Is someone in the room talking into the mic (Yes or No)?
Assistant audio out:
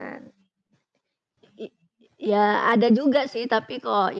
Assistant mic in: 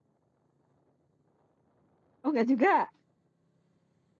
Yes